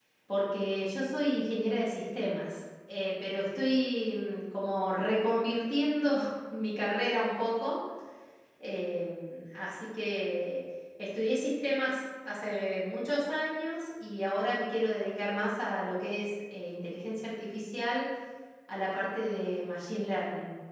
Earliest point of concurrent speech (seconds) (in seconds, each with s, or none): none